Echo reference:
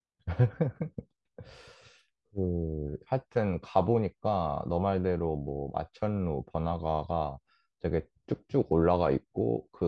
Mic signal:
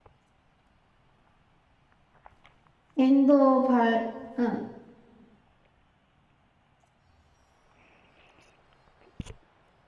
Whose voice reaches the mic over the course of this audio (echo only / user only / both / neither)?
user only